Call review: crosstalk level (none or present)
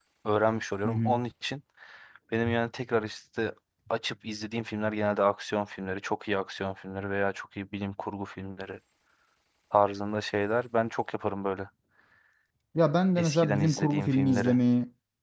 present